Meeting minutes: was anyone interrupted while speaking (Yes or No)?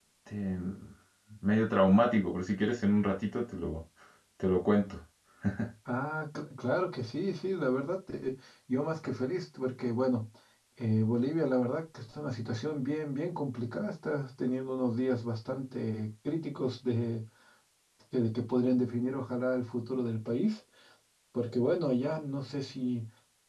No